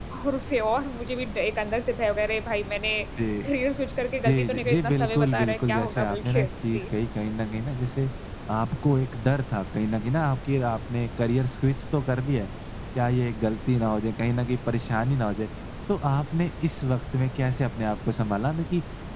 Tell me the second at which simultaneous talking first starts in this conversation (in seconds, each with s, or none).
4.2 s